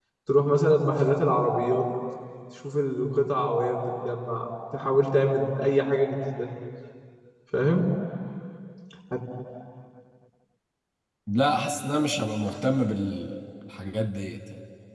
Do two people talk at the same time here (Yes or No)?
No